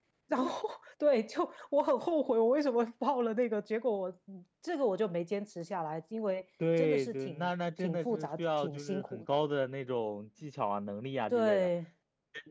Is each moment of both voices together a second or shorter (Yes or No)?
No